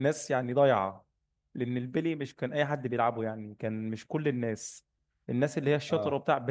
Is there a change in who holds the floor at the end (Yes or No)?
No